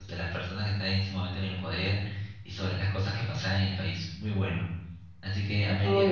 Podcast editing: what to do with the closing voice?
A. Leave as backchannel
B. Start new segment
A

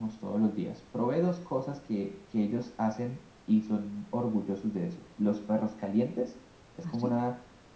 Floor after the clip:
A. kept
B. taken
A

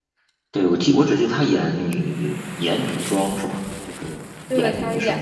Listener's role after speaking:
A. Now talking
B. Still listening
A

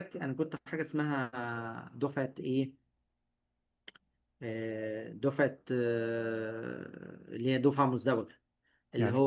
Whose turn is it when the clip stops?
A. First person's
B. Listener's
A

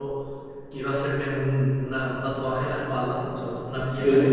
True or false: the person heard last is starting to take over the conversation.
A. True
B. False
B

